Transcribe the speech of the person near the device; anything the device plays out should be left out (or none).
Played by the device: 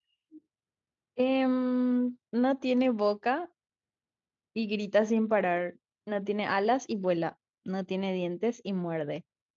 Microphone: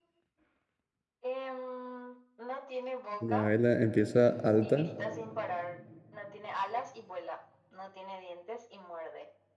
Una vela empieza alta.